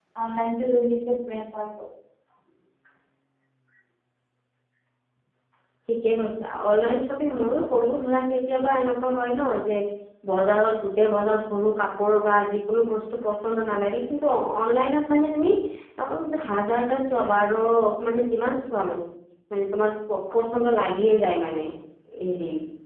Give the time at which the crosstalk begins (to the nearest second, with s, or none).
none